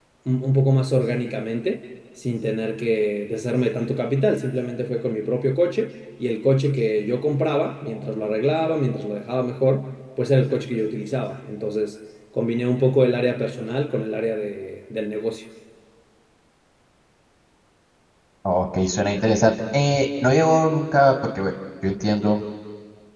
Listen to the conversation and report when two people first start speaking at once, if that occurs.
none

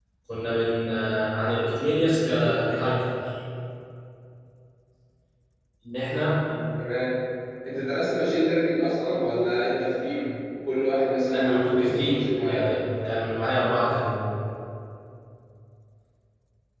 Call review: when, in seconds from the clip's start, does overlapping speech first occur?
11 s

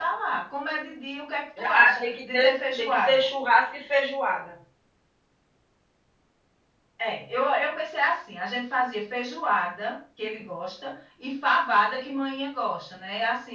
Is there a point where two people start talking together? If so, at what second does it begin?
2 s

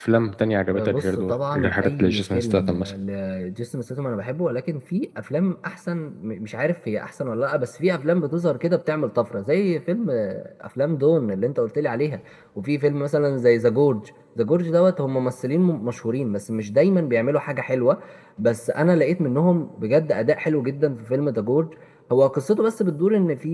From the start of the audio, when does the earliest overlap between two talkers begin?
1 s

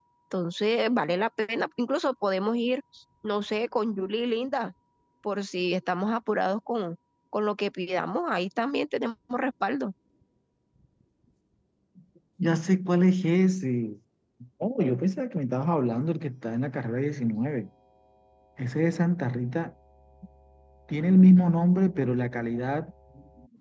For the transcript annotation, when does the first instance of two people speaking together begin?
none

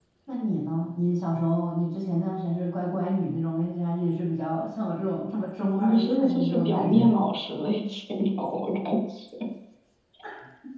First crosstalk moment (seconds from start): 6 s

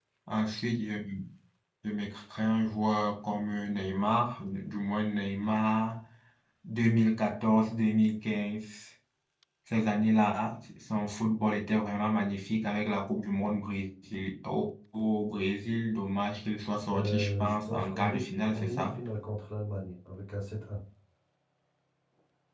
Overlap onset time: 17 s

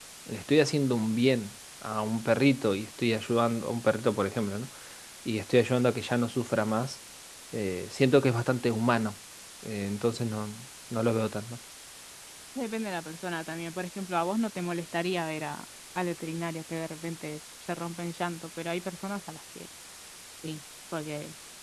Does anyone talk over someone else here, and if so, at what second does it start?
none

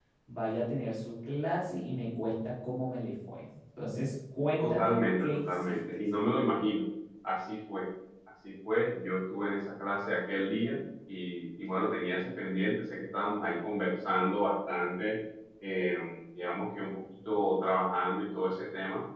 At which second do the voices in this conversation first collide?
5 s

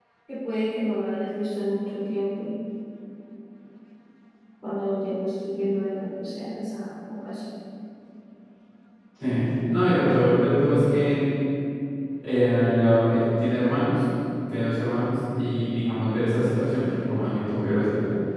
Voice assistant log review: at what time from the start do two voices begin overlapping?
none

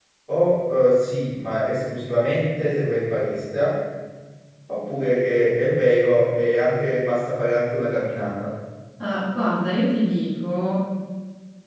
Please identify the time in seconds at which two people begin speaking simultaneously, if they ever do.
none

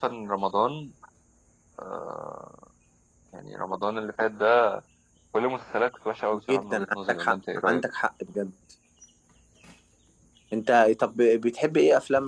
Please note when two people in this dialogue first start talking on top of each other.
6 s

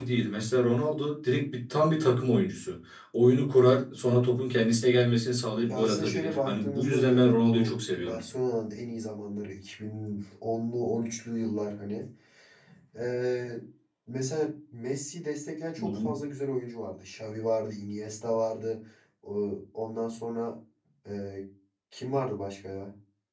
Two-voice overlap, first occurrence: 6 s

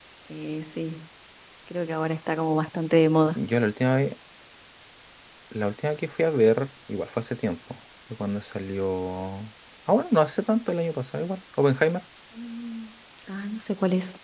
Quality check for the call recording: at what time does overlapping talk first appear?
none

